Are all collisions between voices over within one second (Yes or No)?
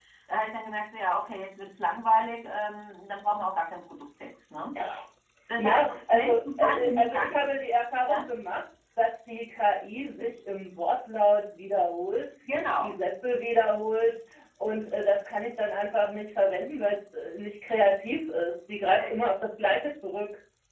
No